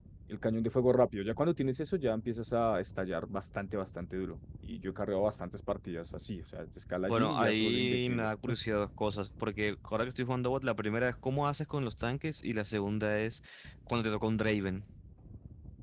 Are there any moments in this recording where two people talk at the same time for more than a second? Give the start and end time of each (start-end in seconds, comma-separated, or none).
7.0-8.3